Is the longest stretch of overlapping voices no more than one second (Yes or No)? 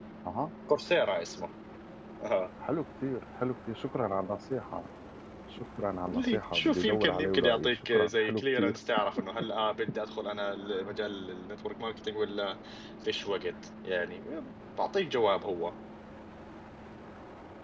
No